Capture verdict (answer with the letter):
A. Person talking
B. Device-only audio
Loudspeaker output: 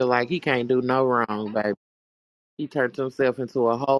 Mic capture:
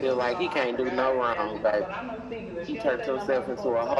A